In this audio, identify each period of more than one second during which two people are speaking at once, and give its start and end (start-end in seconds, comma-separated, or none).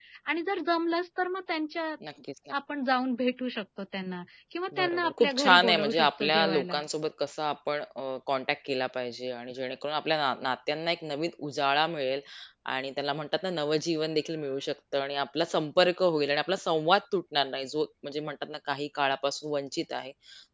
4.8-6.8